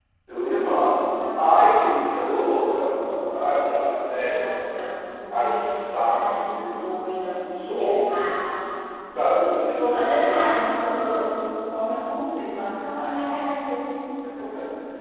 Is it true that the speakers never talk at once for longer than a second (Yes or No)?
No